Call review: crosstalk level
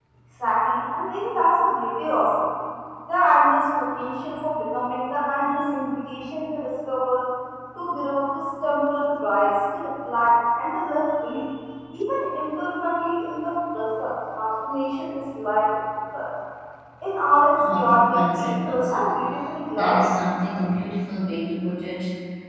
present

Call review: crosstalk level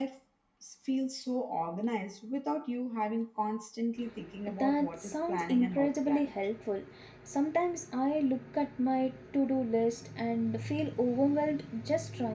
present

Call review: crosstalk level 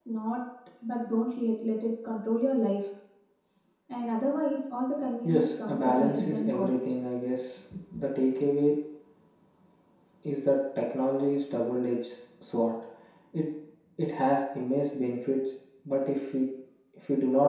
present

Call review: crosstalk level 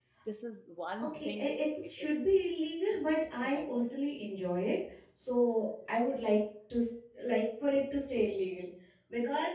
present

